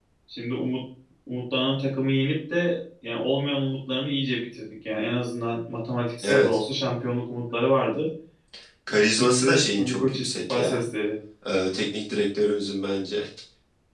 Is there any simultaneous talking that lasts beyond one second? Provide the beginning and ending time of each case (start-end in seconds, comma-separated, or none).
9.1-10.9